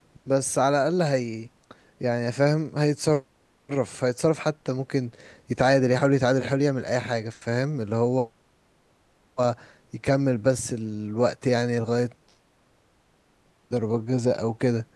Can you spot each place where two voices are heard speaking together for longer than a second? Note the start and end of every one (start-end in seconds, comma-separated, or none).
none